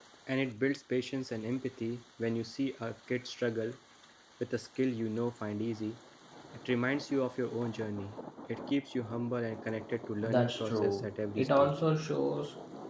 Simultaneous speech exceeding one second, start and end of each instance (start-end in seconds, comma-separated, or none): 10.2-11.7